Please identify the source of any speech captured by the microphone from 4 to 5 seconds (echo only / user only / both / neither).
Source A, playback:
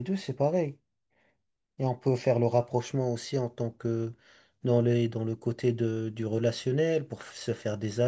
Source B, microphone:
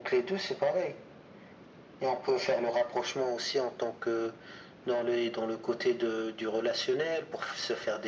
echo only